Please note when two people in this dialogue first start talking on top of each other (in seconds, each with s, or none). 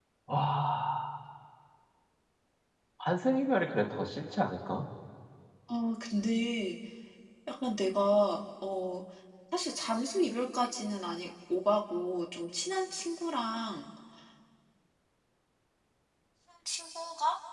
none